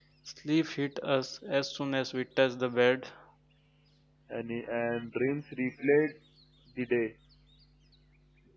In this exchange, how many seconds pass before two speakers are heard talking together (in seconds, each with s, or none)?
none